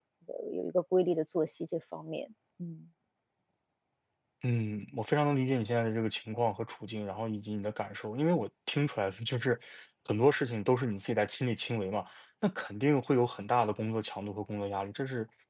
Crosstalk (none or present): none